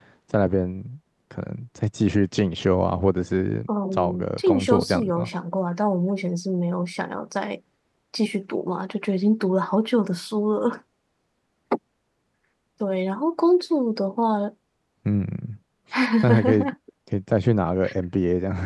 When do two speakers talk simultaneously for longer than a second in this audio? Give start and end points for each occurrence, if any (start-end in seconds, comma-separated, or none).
3.9-5.3